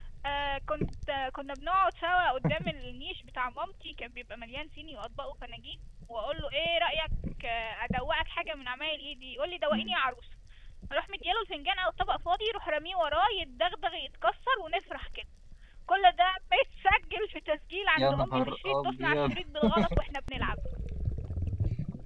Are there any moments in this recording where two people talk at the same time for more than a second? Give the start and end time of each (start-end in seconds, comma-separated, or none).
18.0-19.3